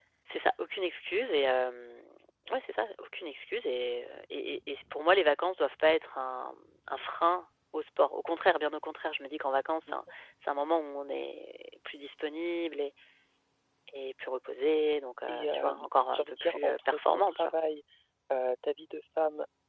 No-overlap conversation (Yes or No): No